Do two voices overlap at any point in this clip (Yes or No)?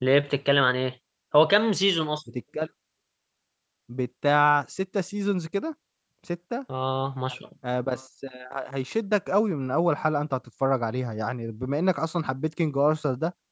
No